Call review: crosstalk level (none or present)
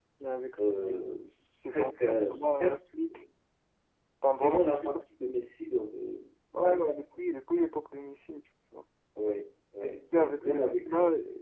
present